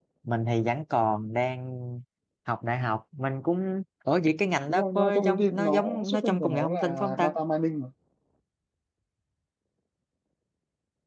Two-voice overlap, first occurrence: 4.7 s

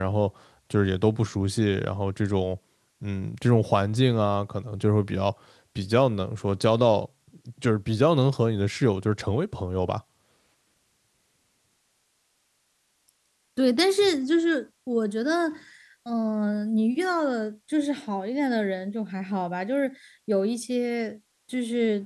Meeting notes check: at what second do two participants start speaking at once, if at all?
none

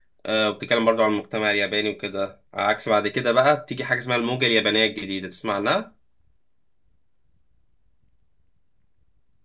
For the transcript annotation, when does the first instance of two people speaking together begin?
none

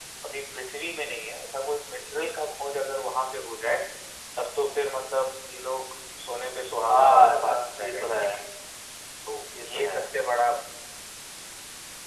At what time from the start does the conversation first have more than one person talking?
6.9 s

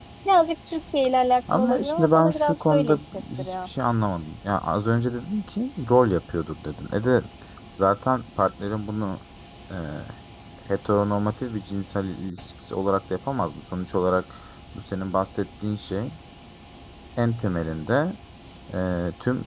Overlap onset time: 1.5 s

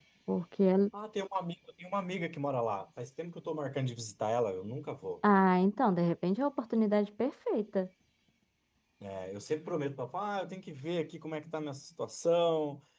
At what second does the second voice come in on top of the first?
none

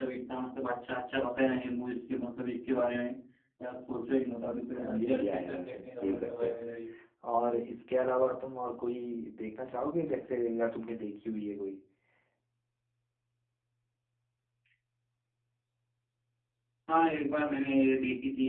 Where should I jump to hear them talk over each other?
4.7 s

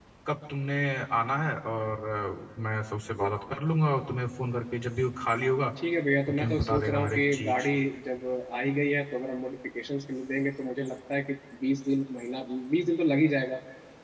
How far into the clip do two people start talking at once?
6.3 s

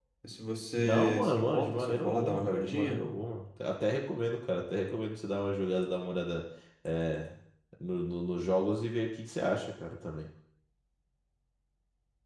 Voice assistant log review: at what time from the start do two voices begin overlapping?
0.8 s

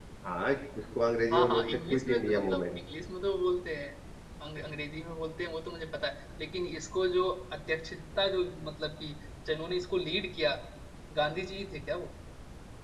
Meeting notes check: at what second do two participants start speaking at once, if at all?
1.3 s

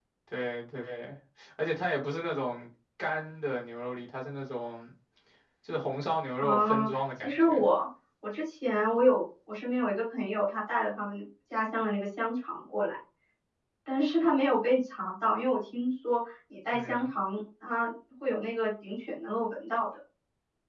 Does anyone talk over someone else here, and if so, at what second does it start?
6.4 s

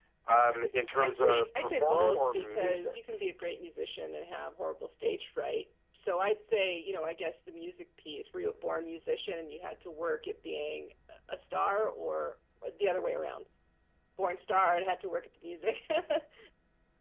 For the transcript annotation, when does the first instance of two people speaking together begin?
1.0 s

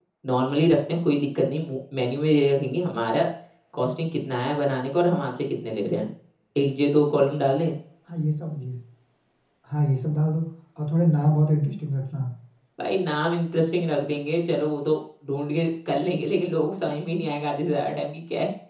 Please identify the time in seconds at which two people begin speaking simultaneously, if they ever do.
none

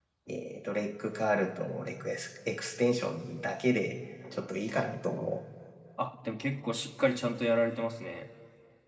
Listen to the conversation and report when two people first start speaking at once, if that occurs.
none

